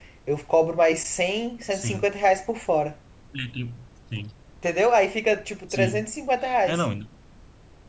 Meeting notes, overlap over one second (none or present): none